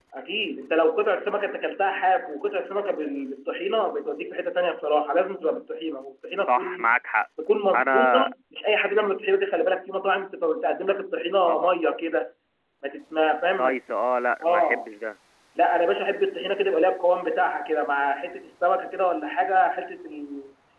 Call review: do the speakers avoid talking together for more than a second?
Yes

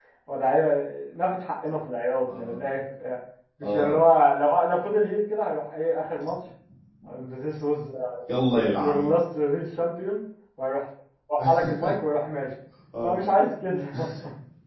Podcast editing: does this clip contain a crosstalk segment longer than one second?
No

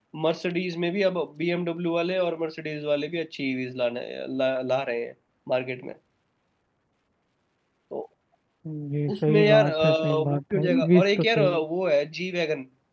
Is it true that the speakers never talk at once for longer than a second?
No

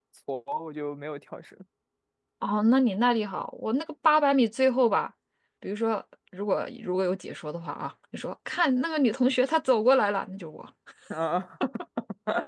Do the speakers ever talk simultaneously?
No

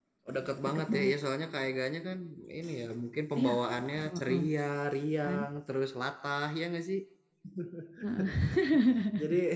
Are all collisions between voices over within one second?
Yes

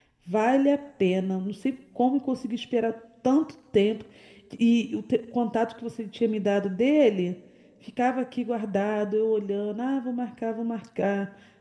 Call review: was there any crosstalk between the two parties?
No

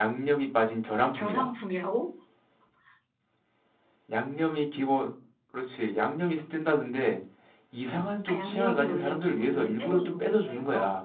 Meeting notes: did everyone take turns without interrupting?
No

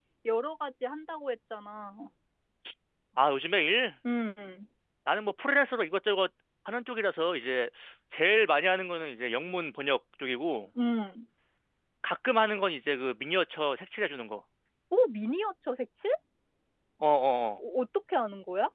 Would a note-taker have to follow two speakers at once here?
No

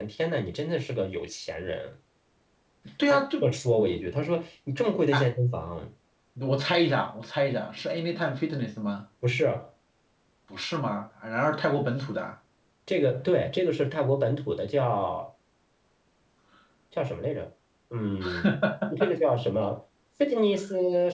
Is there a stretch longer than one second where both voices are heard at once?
No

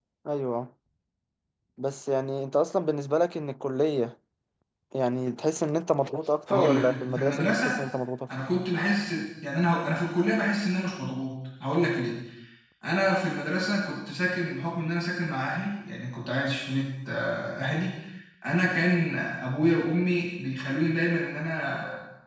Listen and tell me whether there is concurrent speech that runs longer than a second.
Yes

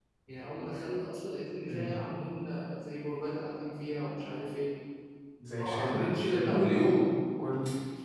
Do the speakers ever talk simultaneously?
Yes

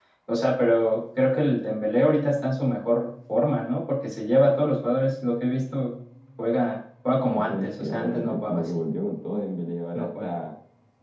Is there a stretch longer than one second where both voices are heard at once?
Yes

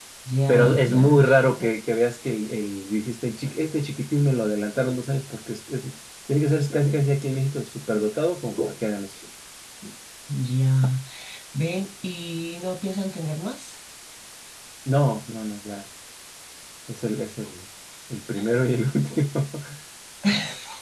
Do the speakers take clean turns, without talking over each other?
No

